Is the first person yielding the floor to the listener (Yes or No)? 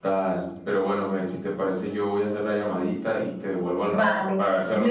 Yes